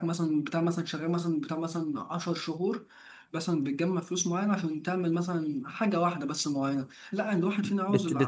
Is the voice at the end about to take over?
Yes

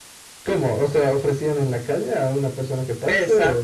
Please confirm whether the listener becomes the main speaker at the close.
Yes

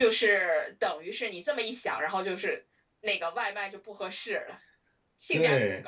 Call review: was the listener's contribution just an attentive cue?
No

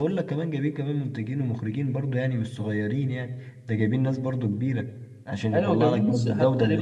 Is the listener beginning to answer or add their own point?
Yes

